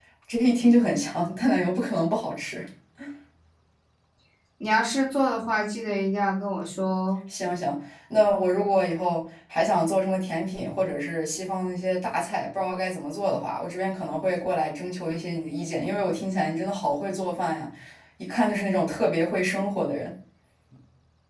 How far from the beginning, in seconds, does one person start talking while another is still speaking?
none

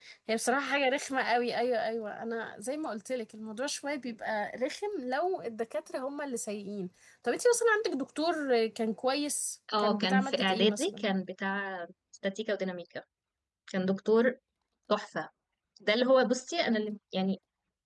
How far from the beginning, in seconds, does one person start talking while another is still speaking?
10 s

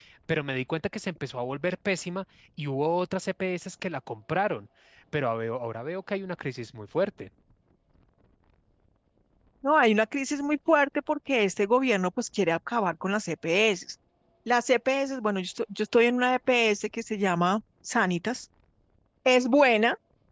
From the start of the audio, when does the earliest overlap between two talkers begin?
none

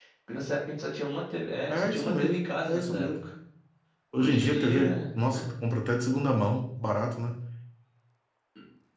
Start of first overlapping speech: 2 s

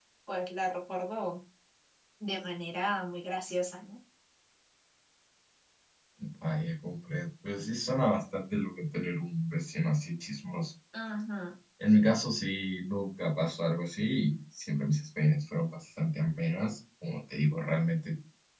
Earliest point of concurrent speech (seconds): none

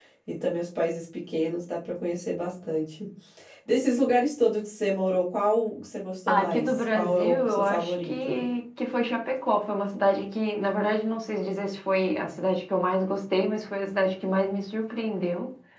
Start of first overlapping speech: 6 s

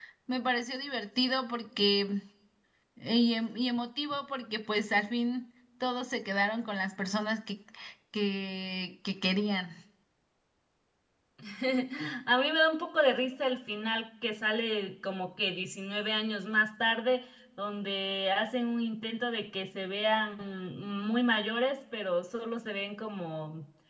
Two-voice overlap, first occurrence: none

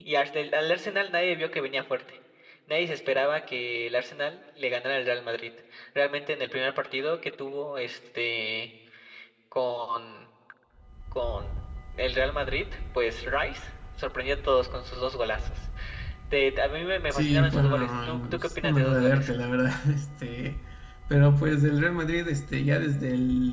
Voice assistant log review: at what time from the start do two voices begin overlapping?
17 s

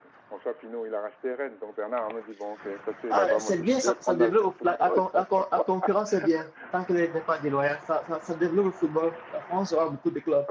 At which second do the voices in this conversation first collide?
3 s

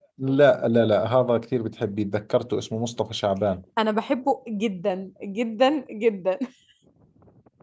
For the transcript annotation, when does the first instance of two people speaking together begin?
none

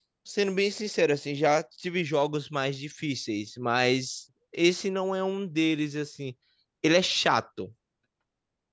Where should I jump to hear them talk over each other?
none

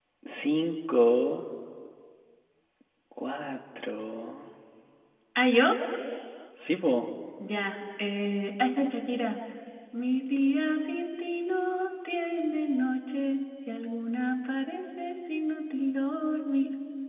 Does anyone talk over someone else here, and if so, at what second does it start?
none

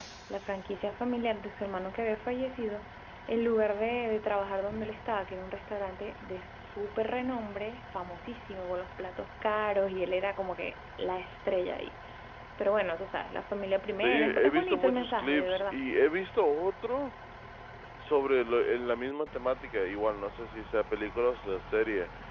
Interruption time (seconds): 14 s

